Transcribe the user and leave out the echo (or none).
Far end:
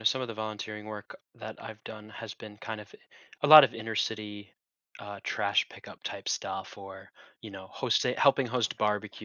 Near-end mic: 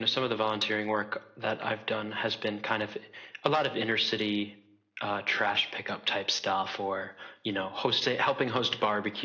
none